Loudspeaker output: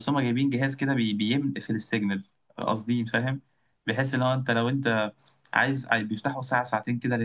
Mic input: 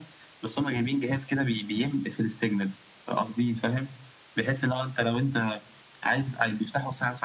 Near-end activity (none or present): none